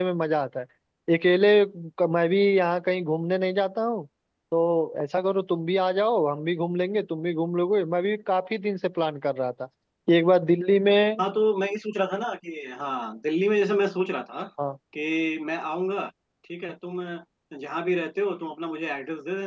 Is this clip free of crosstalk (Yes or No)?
Yes